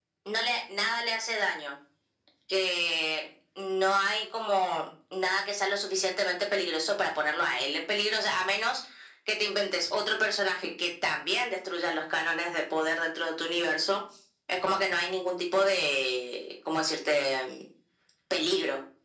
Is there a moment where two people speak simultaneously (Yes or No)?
No